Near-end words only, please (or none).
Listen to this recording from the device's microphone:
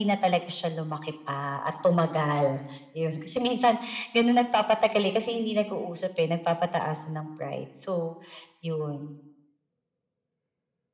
none